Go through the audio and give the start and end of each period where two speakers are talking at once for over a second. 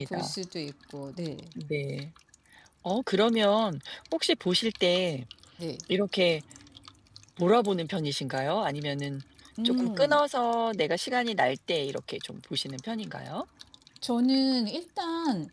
none

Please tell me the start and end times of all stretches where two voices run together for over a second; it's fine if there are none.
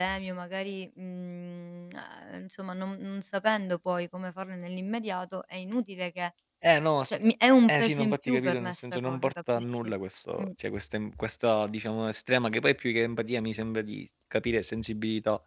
7.7-9.6

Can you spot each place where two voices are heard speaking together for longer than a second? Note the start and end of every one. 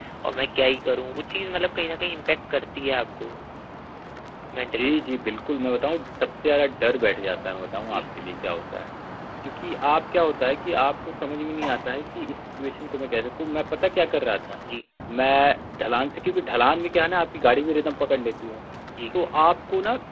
none

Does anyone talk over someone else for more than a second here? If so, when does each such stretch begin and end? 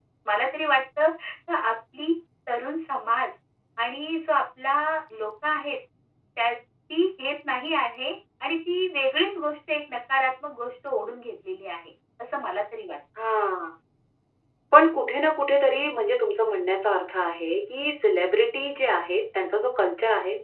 none

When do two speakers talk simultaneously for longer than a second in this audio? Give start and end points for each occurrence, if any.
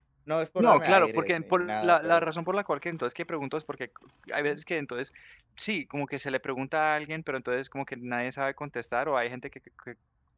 0.6-2.2

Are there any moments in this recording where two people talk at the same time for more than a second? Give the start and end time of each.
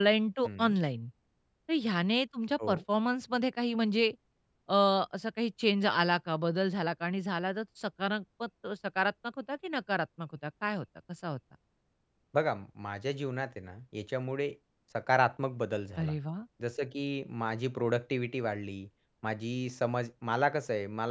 none

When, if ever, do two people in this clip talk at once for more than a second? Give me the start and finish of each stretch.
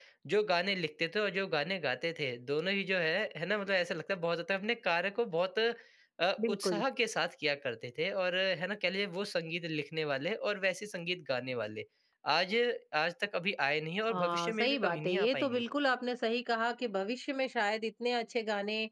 14.1-15.6

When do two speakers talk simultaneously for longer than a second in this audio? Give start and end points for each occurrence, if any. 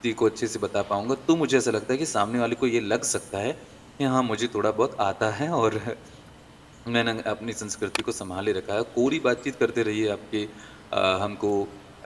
none

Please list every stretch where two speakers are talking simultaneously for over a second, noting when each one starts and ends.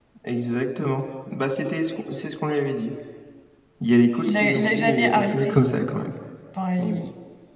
4.2-5.5

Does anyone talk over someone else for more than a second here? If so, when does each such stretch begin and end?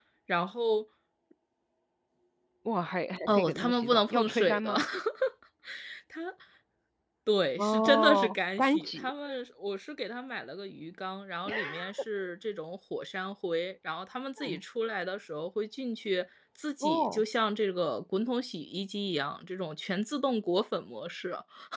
3.3-4.8, 7.6-9.1

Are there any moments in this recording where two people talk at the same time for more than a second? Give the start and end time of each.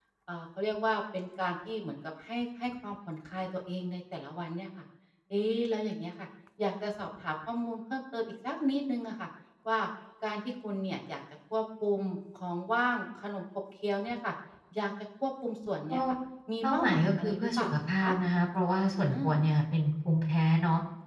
16.6-18.1

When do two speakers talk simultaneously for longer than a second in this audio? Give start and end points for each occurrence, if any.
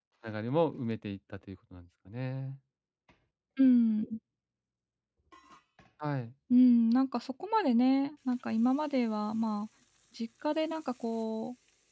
none

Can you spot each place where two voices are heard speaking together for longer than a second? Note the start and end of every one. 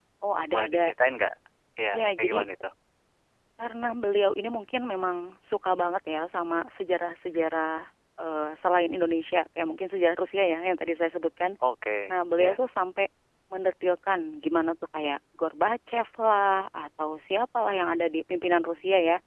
none

